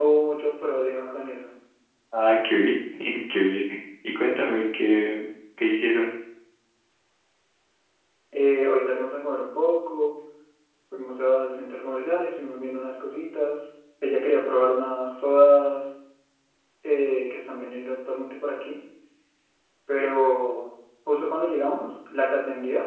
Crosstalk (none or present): none